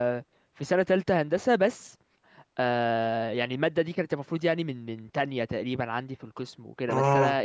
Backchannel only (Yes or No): Yes